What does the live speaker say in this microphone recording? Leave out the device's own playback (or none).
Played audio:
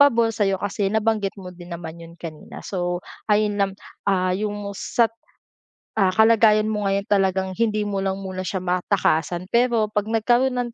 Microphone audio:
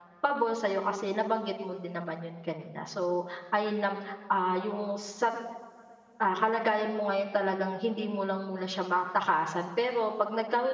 none